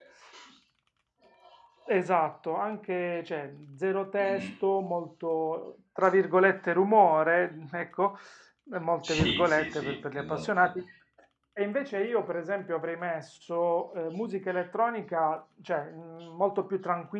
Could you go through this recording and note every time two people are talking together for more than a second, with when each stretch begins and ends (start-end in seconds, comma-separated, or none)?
9.1-10.7